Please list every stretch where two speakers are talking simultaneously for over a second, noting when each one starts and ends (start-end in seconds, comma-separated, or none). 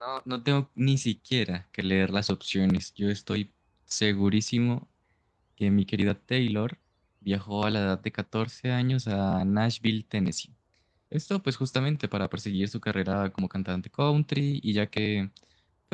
none